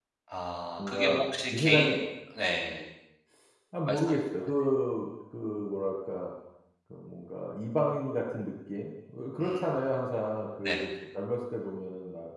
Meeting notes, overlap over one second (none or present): present